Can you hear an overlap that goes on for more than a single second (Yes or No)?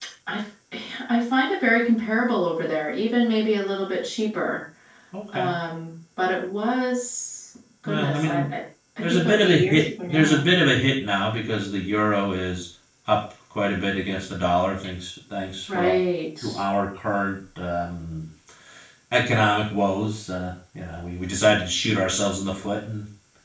Yes